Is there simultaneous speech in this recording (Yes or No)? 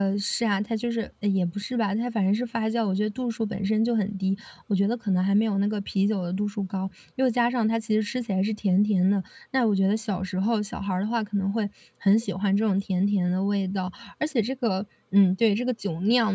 No